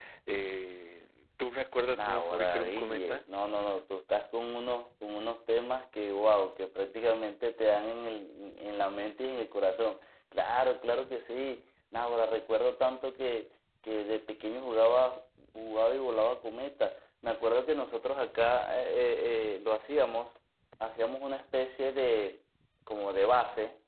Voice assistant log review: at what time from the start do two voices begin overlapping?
2 s

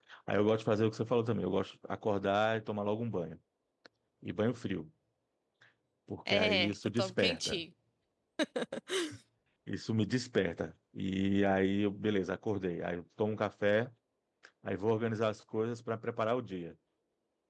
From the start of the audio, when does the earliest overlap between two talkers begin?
6 s

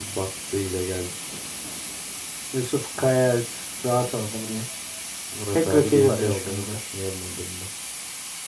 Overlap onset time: 6 s

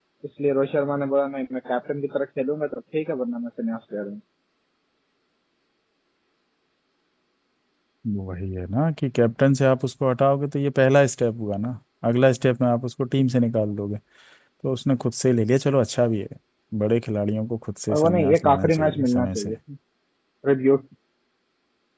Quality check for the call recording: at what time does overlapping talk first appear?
18 s

